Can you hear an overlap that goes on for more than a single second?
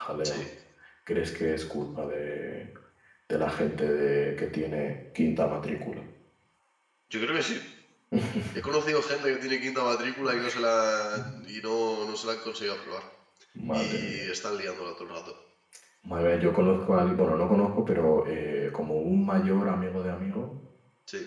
No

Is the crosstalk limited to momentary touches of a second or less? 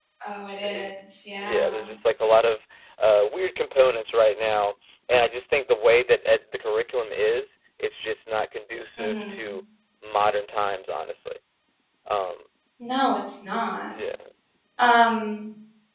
Yes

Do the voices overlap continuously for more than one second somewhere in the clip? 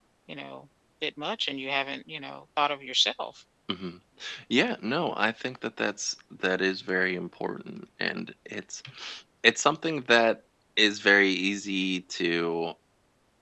No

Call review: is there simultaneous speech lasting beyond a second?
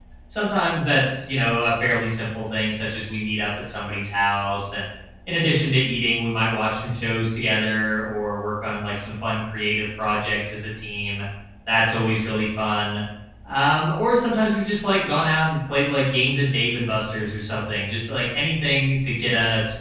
No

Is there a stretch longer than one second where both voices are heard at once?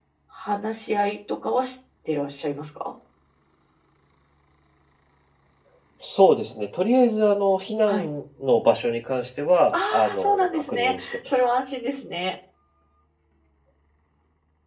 Yes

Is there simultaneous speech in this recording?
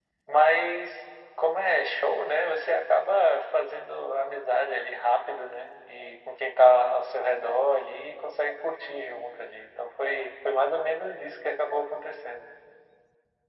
No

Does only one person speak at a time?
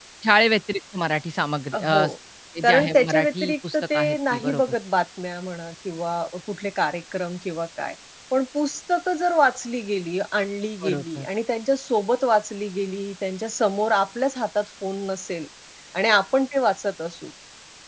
No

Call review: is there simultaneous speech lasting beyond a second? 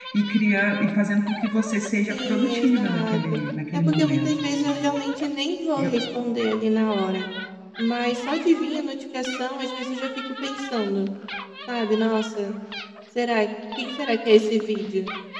Yes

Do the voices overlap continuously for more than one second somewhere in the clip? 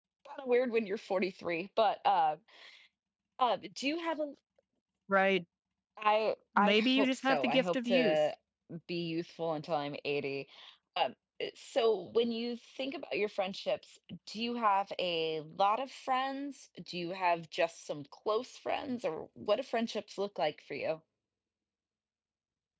Yes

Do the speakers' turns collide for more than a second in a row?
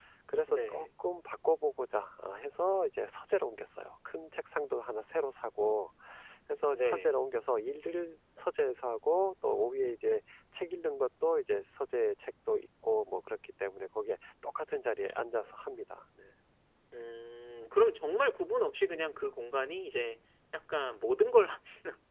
No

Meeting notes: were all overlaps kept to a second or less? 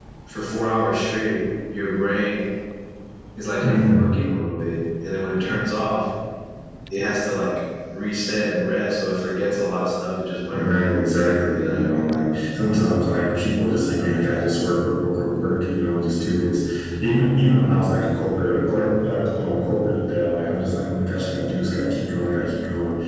Yes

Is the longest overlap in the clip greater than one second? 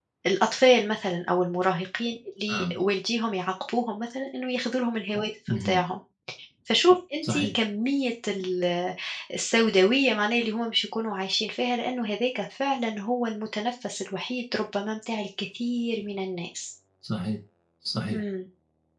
No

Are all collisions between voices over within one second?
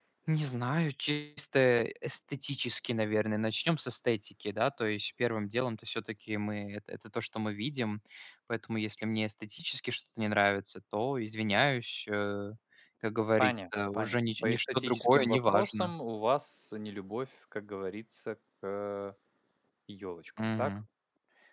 No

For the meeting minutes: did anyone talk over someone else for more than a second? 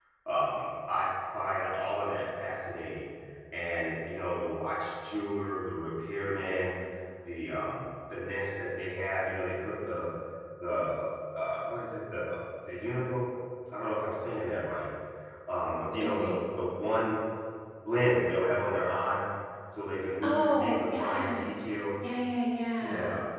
Yes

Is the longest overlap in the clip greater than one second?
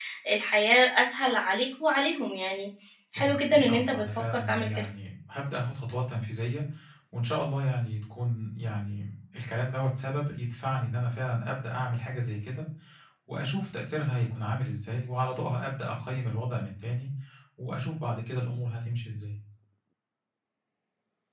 Yes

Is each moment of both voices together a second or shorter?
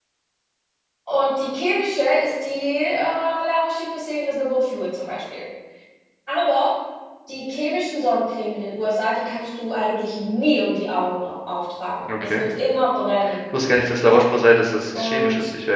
Yes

